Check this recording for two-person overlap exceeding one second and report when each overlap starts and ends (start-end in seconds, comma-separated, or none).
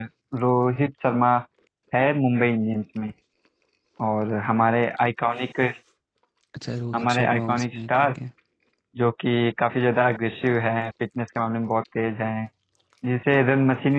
6.9-8.2